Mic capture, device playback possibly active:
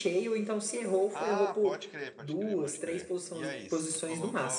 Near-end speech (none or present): present